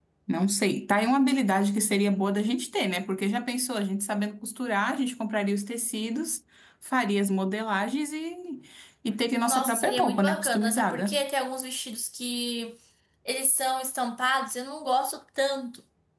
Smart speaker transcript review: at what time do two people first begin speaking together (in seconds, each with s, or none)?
9.4 s